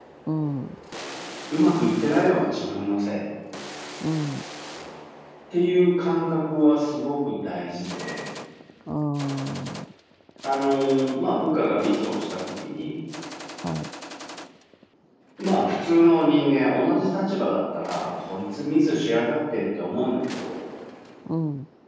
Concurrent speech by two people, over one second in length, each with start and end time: none

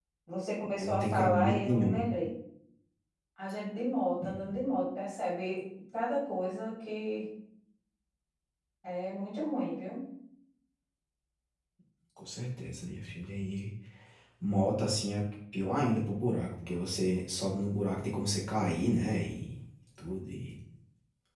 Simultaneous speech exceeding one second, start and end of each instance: 0.8-2.0

